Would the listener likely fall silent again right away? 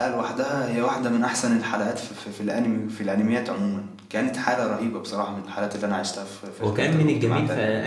No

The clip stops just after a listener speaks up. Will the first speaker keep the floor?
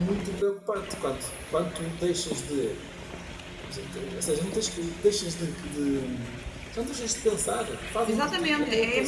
No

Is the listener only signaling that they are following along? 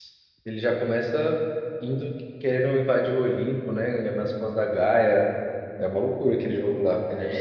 No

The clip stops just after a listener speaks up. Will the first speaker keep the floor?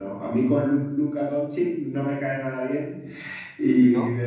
Yes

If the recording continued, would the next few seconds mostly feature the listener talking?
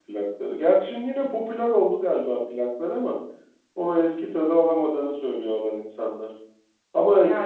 No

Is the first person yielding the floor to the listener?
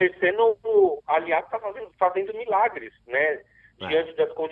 No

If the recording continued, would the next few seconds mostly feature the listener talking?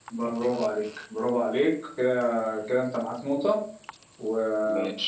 No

